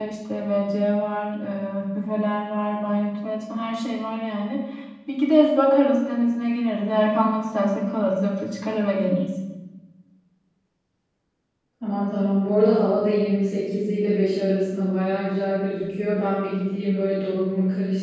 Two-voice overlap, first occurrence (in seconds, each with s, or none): none